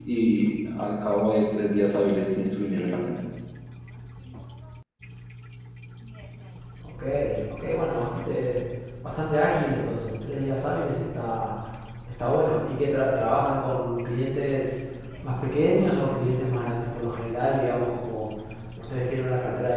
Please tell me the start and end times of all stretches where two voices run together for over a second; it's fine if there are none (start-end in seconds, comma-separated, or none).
none